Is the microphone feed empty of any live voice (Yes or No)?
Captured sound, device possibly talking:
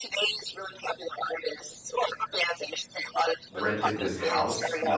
No